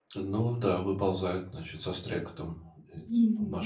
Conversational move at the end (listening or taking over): taking over